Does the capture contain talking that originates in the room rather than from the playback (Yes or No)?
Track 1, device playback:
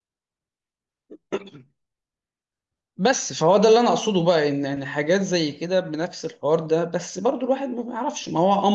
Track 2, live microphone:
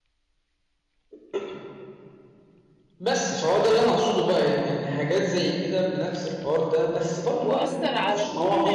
Yes